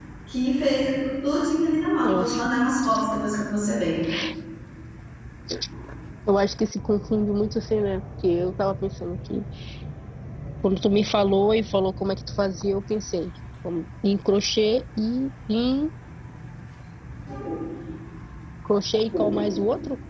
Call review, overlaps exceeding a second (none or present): none